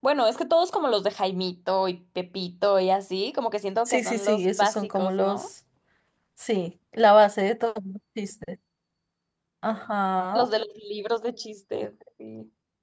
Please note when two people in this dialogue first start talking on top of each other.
3.9 s

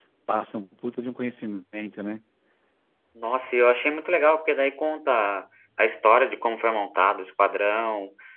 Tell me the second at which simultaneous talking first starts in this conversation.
none

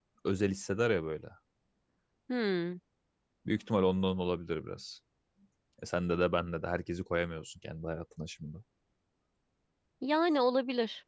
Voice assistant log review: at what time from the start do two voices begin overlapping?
none

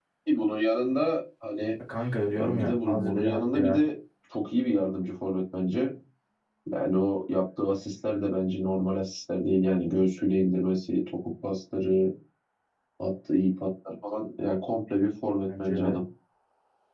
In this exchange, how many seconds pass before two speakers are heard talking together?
2.4 s

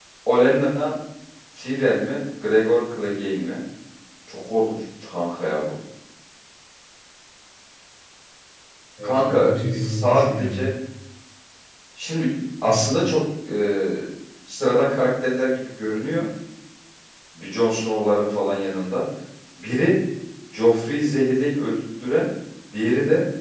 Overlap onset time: 9.0 s

